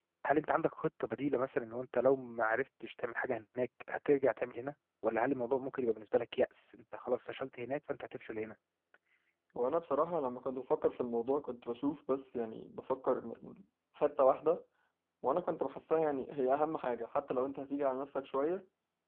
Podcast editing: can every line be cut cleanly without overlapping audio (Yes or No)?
Yes